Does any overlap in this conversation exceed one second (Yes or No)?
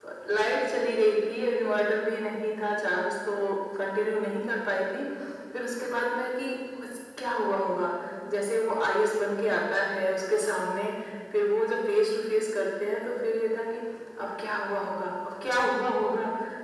No